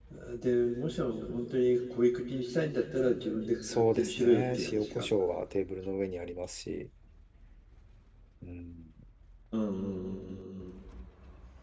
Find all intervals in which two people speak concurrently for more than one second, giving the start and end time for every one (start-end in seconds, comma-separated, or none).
3.6-5.1